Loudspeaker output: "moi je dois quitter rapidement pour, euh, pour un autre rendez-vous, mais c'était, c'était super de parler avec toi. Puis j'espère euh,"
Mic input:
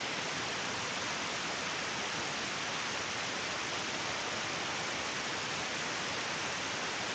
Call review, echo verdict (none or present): none